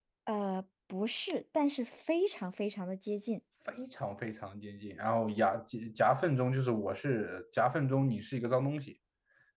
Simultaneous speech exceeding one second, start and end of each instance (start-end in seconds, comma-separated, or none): none